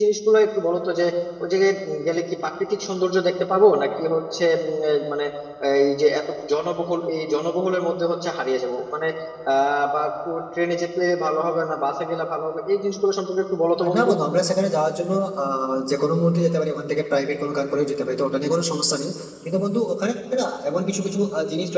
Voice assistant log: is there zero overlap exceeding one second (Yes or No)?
Yes